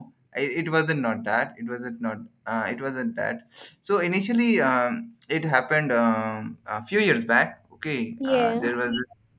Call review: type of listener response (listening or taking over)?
listening